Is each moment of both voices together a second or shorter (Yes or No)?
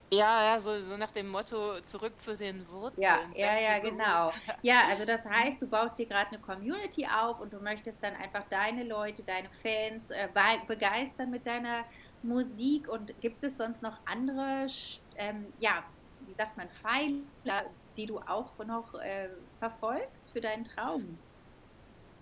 No